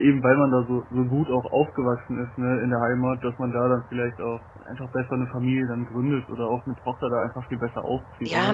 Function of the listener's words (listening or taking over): taking over